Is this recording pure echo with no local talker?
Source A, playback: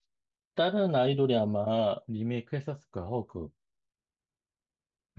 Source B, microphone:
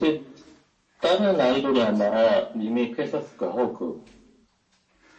Yes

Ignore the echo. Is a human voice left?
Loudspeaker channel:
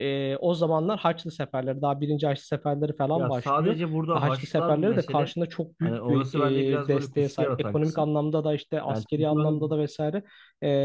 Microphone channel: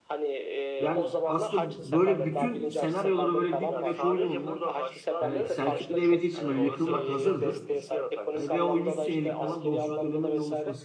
Yes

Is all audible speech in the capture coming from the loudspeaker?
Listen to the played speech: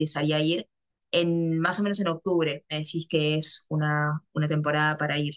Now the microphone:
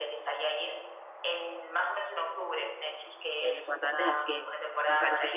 No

